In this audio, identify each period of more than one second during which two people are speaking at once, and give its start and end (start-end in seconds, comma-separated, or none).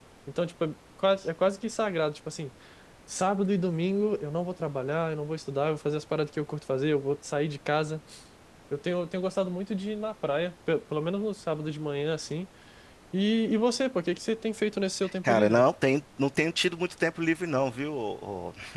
none